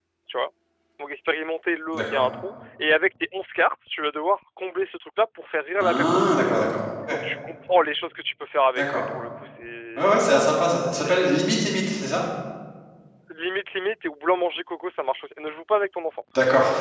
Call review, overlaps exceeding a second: none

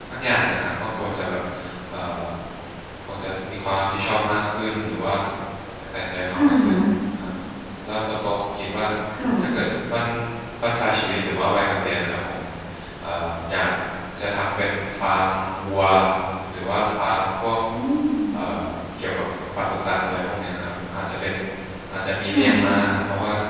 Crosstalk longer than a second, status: none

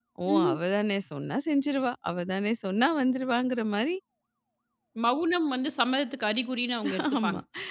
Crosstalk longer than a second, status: none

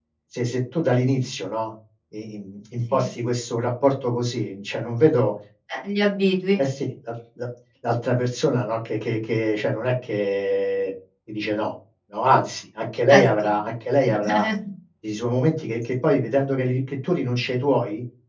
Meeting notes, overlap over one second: none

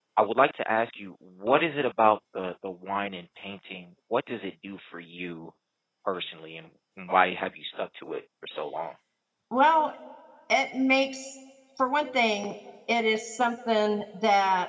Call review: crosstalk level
none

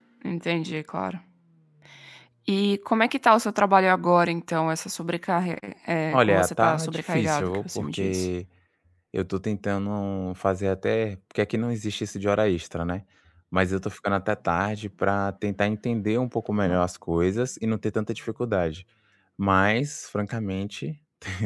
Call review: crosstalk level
present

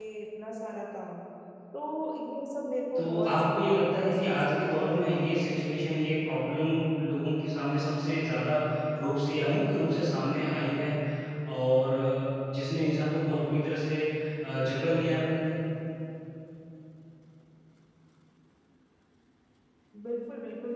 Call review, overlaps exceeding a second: present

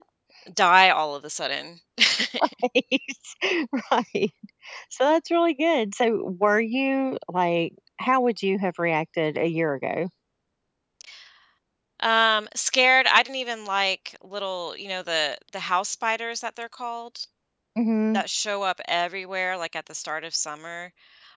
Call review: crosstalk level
none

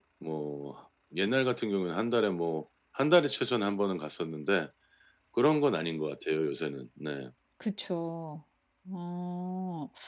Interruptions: none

